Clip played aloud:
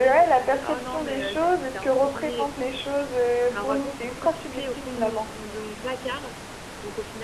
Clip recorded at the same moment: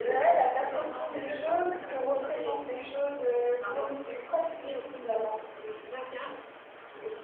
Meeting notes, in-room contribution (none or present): none